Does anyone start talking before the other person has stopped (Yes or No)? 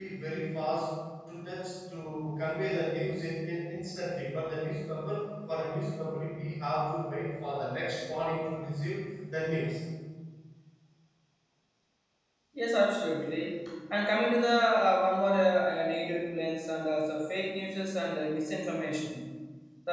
No